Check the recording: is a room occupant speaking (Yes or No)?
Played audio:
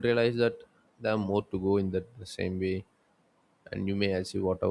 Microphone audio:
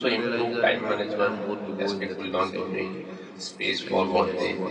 Yes